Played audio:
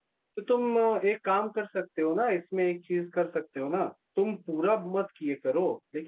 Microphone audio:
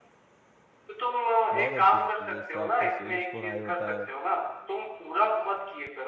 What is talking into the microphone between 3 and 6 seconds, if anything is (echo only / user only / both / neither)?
both